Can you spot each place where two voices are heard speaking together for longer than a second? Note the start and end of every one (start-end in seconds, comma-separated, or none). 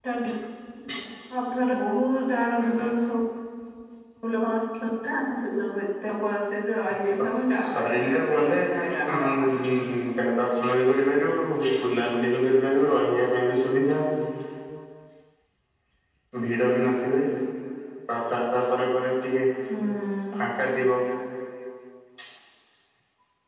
7.6-9.6